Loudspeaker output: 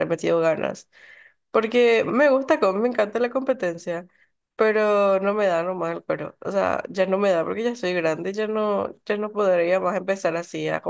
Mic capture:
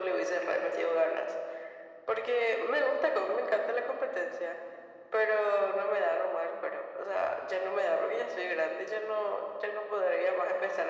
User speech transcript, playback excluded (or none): none